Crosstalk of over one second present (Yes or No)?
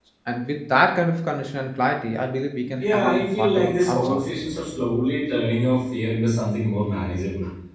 Yes